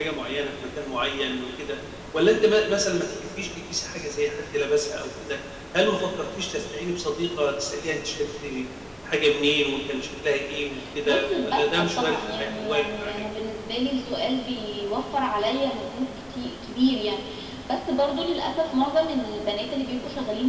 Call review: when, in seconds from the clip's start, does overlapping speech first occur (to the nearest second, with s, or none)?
11 s